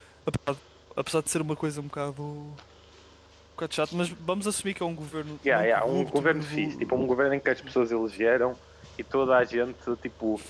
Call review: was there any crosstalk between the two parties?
Yes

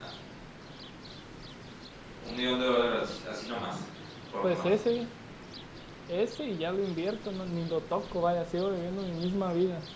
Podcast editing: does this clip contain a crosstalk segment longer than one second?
No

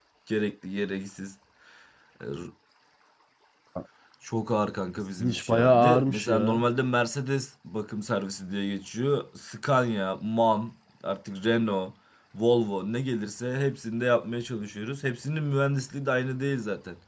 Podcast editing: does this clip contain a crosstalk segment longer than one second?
Yes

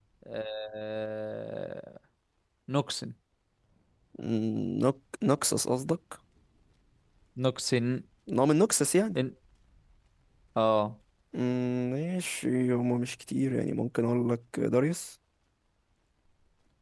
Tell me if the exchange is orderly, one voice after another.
Yes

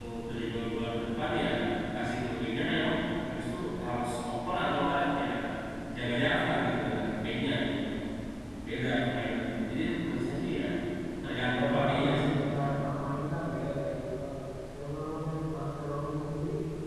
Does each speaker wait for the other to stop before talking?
No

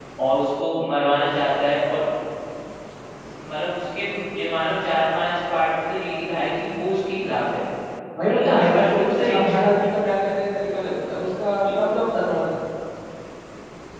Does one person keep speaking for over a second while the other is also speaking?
Yes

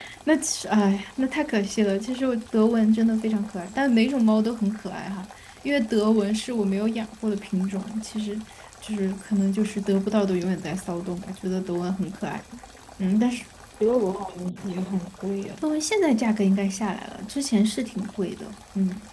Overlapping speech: No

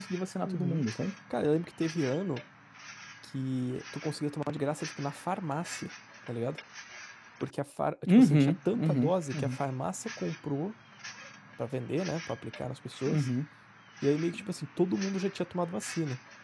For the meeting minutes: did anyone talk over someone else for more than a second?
Yes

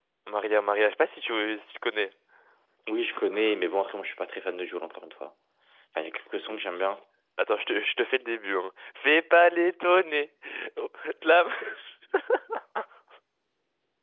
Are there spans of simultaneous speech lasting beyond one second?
No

